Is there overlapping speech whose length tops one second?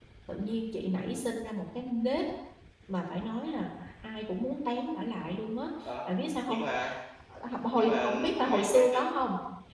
Yes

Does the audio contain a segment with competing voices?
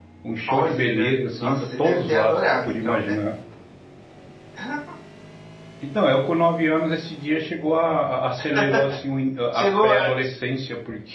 Yes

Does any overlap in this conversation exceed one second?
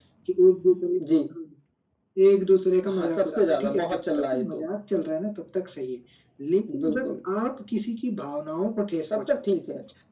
Yes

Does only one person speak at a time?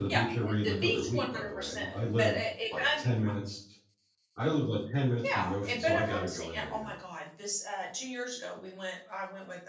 No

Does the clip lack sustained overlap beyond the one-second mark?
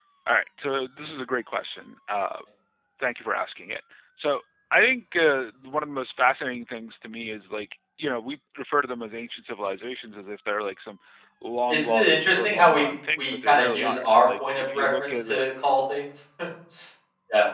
No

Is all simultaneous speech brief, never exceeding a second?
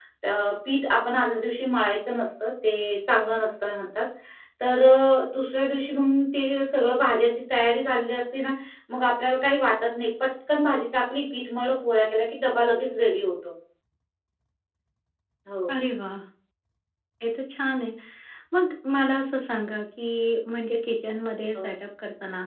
Yes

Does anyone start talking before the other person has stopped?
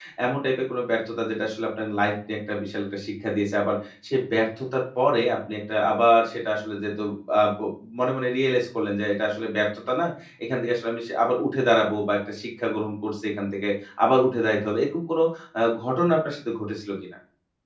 No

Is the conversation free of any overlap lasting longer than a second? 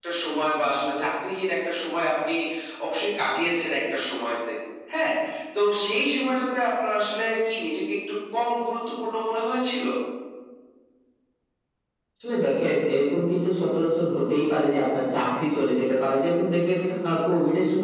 Yes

